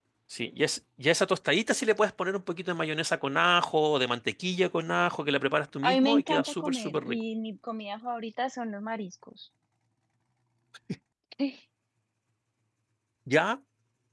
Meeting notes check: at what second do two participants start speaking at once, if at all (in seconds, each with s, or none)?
5.8 s